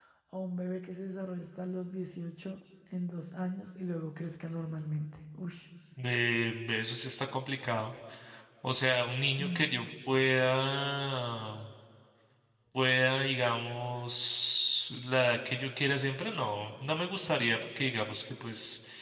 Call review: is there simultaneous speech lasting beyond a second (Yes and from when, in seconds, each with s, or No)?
No